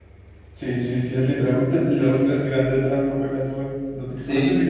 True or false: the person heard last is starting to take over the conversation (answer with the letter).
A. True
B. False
A